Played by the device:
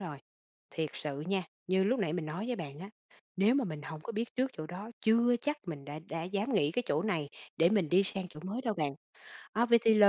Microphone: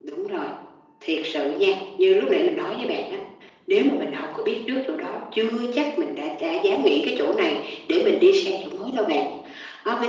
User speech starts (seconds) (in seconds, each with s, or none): none